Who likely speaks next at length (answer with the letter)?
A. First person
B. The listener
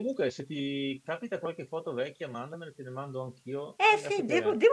B